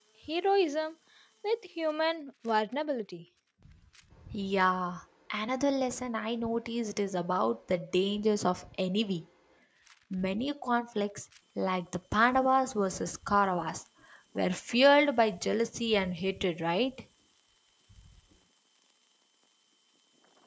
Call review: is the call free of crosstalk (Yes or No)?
Yes